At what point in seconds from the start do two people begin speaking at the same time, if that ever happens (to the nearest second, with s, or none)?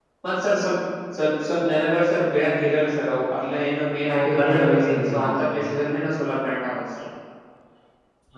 4 s